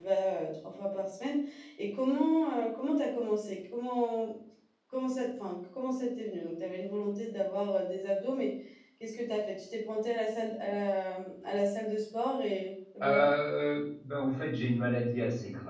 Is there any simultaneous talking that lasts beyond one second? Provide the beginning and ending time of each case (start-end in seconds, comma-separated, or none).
none